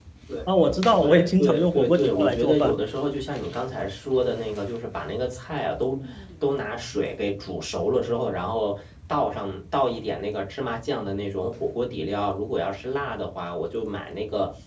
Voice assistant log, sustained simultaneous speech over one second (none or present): present